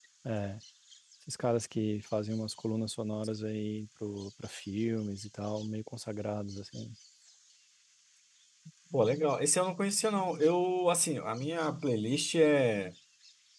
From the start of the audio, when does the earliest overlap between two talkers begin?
none

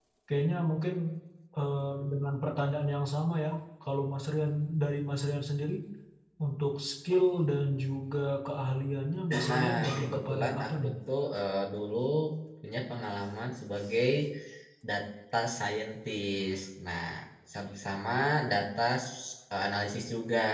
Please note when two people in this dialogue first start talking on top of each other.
9.3 s

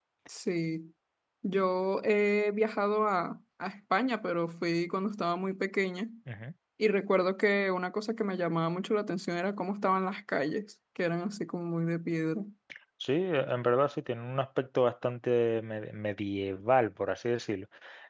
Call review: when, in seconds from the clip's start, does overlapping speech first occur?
none

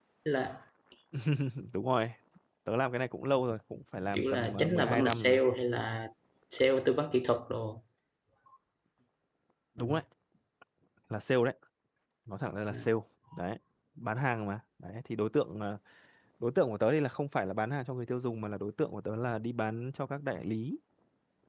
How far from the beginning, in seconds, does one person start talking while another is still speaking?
4.1 s

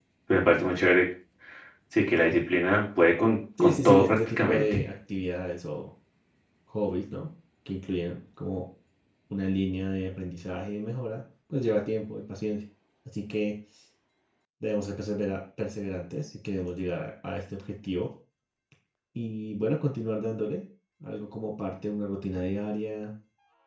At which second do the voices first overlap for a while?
3.6 s

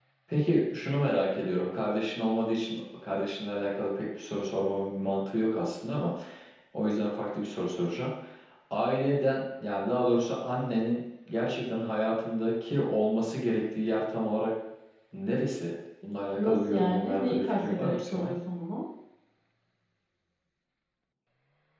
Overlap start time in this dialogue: 16.4 s

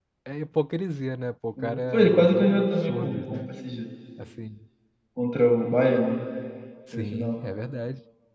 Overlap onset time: 1.6 s

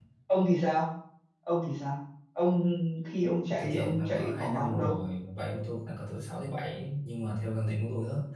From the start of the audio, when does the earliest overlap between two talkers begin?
3.6 s

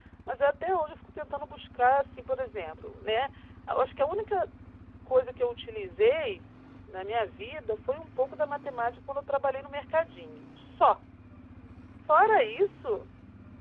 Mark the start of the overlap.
none

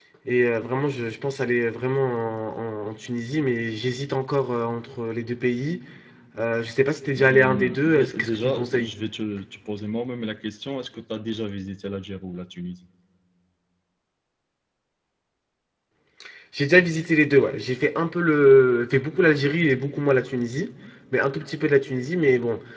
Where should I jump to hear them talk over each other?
7.2 s

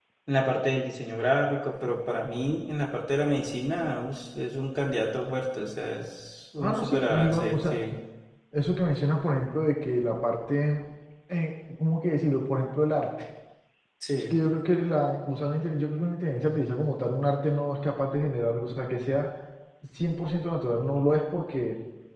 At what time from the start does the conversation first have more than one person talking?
6.6 s

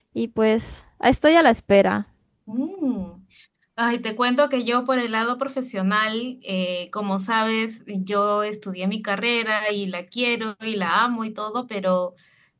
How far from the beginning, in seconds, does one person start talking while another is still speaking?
none

